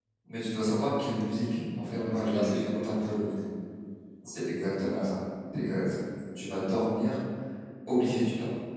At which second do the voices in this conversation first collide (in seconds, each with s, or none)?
1.9 s